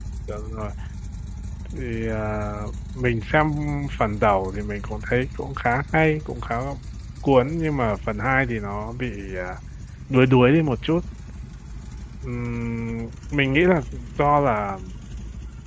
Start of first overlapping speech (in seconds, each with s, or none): none